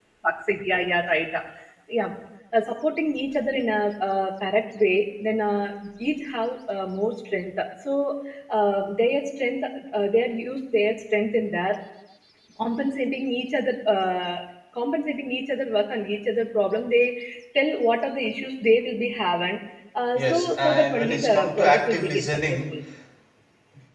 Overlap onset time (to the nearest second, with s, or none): 20 s